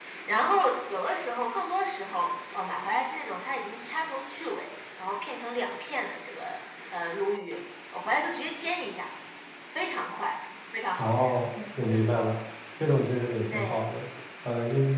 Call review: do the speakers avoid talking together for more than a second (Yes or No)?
Yes